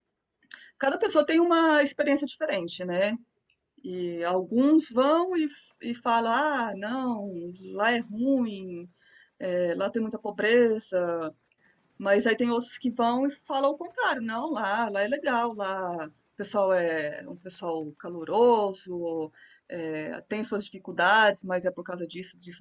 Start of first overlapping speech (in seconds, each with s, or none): none